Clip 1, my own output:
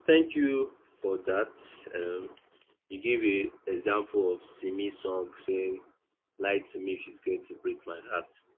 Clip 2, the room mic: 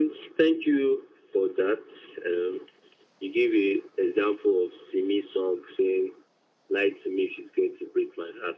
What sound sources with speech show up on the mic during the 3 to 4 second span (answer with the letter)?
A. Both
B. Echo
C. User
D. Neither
B